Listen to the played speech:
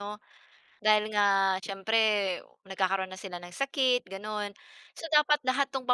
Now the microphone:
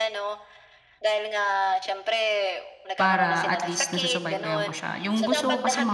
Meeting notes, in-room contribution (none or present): present